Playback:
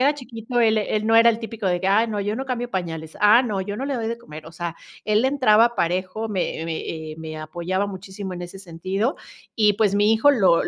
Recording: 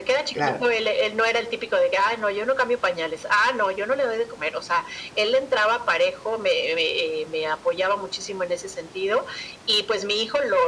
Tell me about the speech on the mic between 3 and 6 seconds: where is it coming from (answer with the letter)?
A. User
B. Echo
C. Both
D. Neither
B